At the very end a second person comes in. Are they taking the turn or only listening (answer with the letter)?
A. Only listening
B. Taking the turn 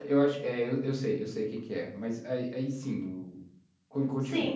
B